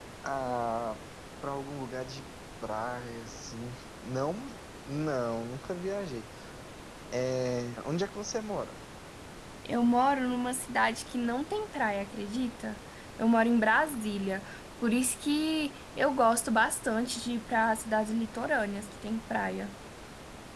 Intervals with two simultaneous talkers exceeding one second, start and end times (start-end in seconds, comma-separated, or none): none